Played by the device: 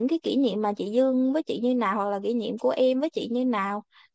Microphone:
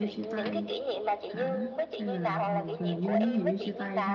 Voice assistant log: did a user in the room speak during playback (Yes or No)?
Yes